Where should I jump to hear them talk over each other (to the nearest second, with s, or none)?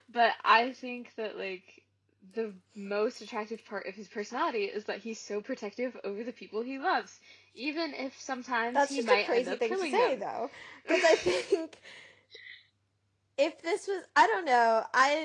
9 s